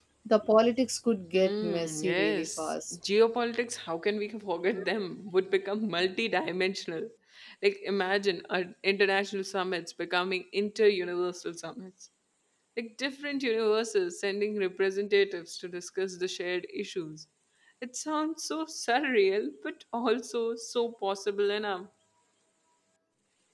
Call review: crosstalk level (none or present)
present